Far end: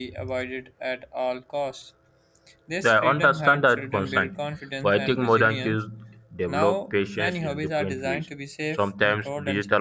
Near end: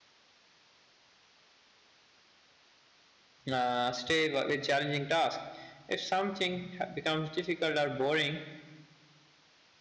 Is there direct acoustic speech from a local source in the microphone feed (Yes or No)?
Yes